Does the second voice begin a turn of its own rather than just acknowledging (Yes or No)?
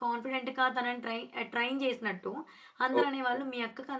No